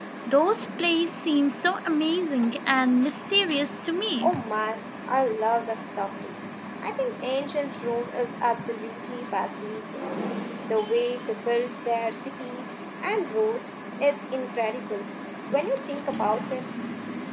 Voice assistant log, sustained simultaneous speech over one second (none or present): none